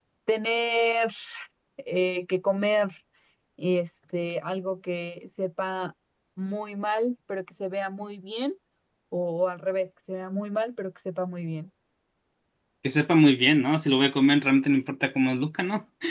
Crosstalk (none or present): none